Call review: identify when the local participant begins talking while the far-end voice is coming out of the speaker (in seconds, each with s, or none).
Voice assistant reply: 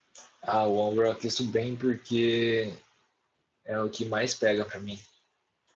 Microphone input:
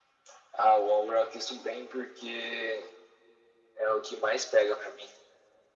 none